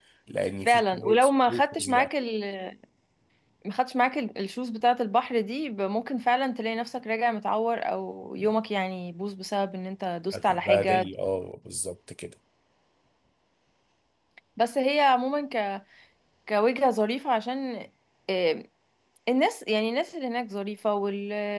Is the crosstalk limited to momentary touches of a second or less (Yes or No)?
No